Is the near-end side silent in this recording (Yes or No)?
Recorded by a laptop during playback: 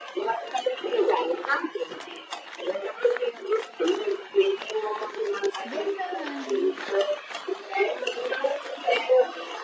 No